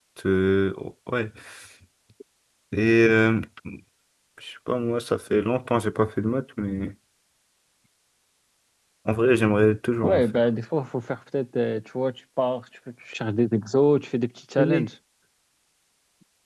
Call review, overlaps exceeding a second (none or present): none